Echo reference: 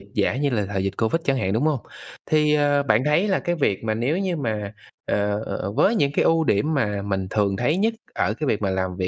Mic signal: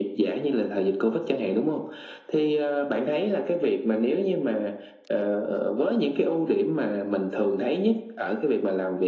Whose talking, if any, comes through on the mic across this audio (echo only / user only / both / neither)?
echo only